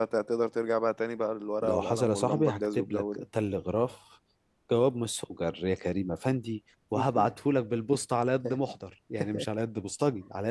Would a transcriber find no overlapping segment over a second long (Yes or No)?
No